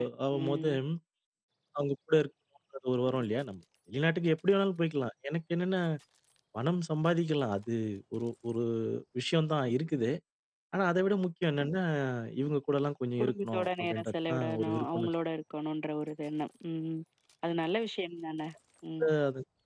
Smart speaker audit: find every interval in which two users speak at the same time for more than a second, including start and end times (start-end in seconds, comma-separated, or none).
13.2-15.1